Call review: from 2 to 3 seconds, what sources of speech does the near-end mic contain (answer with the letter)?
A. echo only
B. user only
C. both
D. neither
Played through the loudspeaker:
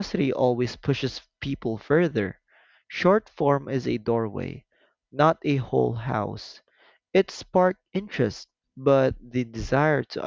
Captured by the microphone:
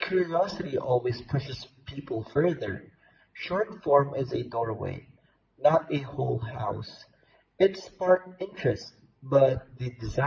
A